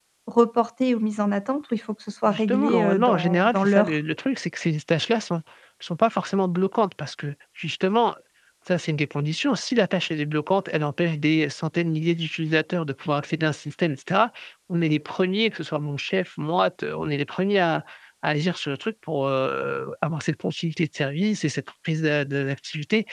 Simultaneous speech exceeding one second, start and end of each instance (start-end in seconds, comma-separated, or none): 2.3-3.9